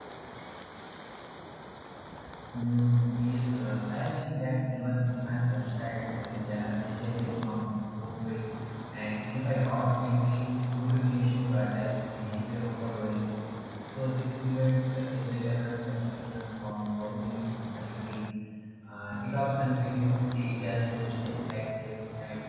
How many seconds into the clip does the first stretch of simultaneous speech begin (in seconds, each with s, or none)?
none